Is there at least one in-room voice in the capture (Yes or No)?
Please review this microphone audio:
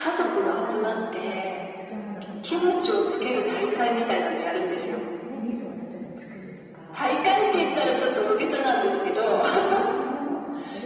Yes